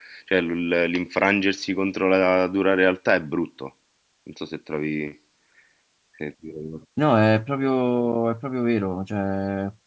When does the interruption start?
none

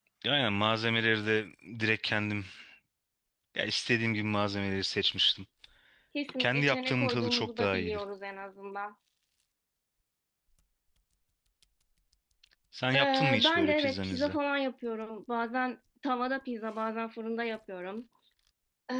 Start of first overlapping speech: 6.4 s

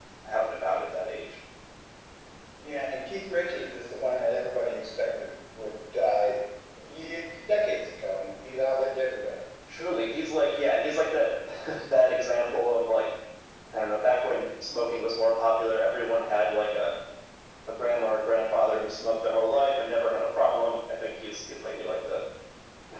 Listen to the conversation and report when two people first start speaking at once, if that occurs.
none

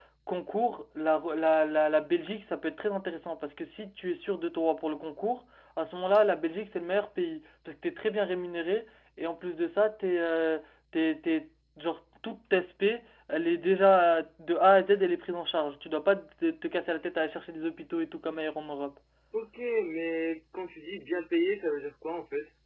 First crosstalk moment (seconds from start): none

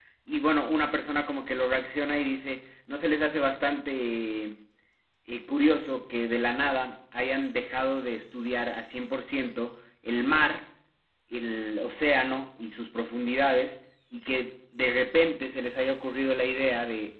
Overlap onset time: none

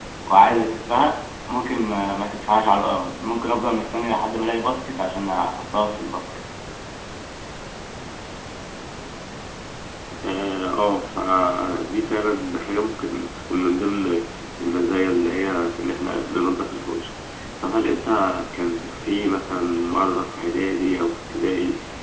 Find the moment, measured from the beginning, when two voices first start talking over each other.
none

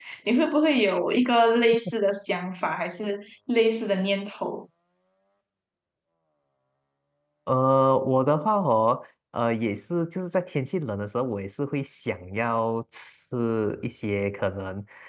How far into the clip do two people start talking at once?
none

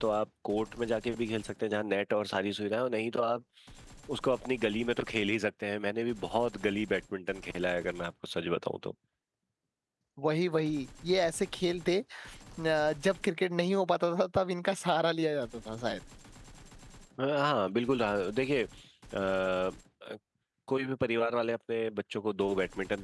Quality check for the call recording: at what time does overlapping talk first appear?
none

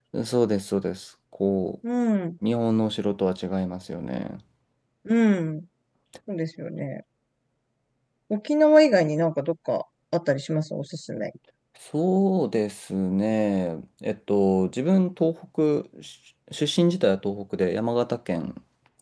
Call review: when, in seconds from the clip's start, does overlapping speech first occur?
none

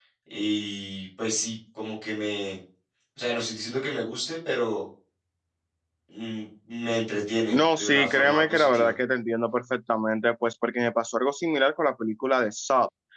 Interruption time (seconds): 7.5 s

